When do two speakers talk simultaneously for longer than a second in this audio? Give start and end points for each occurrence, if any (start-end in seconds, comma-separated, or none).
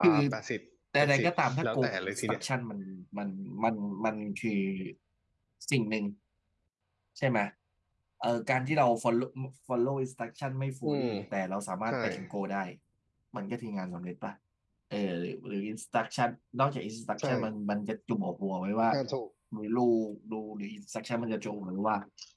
1.0-2.4